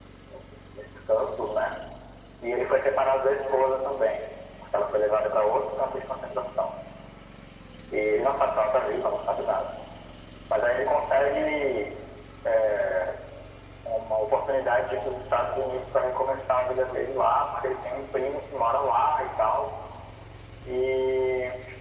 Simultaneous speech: No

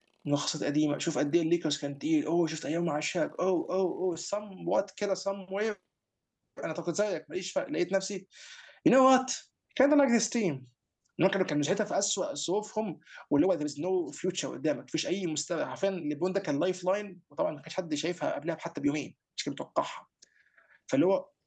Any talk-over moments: No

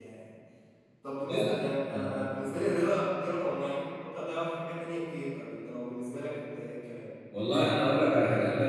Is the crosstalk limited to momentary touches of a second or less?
Yes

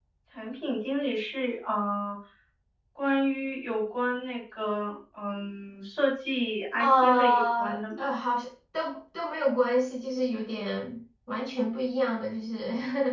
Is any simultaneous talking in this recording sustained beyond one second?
Yes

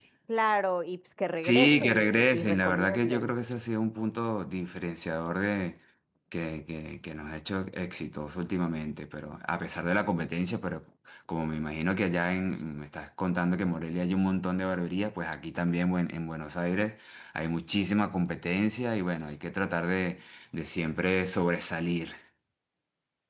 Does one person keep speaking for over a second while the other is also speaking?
Yes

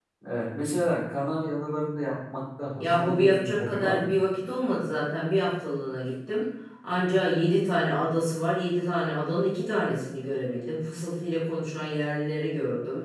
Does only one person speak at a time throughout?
No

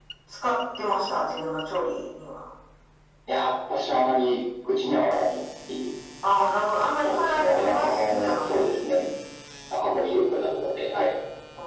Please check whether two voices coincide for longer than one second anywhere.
Yes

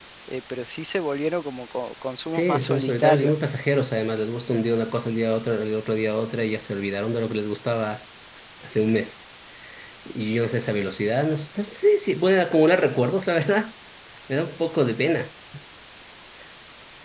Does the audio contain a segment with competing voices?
Yes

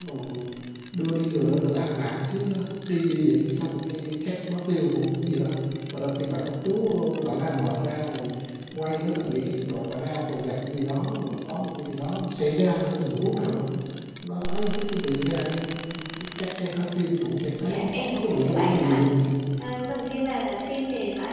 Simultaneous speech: Yes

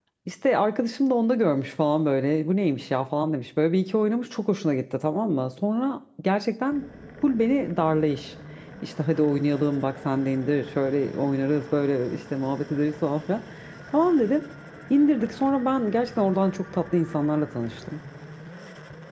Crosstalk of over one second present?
No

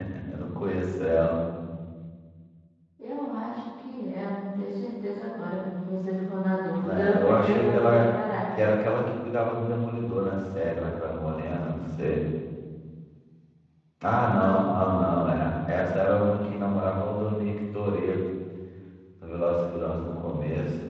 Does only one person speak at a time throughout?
No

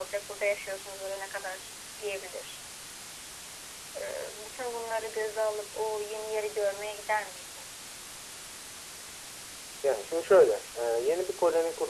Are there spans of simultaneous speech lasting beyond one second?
No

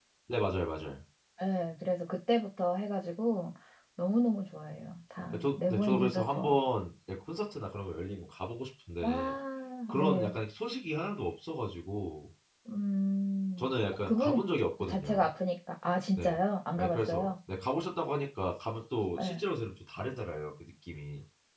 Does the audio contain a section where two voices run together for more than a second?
Yes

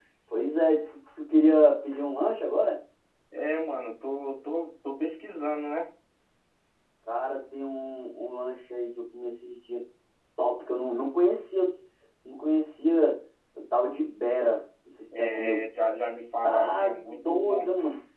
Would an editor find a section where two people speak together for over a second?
Yes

